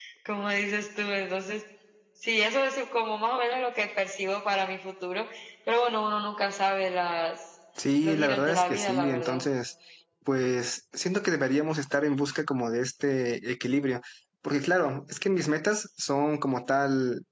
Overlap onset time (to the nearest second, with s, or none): 8 s